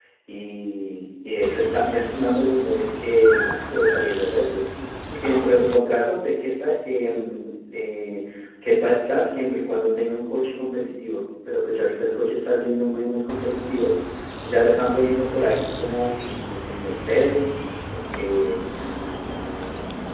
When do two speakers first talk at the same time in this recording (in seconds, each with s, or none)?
none